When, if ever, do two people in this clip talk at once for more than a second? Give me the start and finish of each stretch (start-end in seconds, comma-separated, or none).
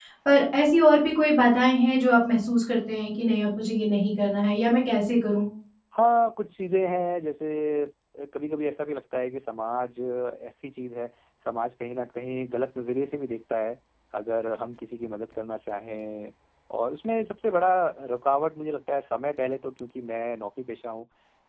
none